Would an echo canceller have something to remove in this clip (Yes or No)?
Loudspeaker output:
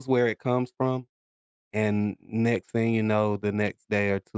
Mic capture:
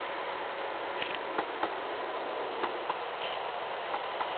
No